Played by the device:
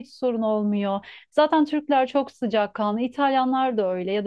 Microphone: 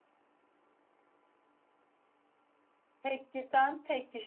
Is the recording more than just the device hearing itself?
Yes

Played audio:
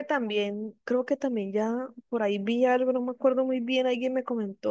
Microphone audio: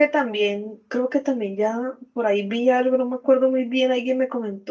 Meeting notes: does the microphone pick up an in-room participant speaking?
No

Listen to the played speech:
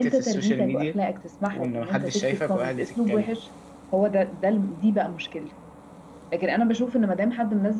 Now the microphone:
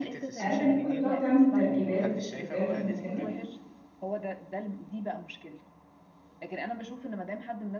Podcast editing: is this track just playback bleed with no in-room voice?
No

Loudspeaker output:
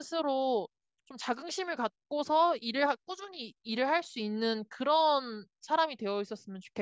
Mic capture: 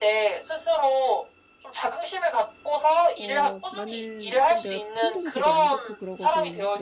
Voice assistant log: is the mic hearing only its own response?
No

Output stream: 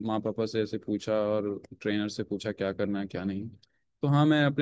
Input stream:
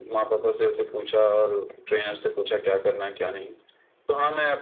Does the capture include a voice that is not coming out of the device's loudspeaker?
No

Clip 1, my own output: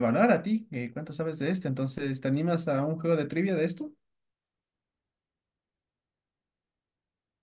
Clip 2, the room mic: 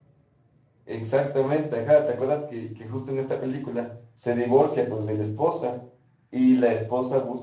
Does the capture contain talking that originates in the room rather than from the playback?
Yes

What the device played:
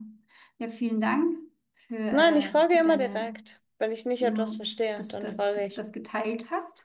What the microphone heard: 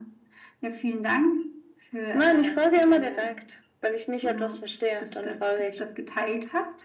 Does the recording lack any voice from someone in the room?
Yes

